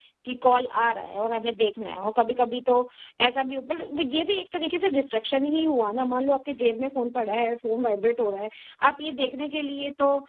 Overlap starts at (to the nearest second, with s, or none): none